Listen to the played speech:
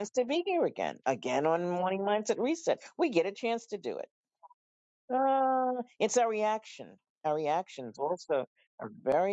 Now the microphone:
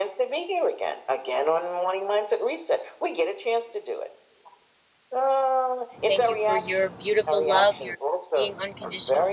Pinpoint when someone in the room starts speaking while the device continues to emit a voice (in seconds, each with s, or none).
6.1 s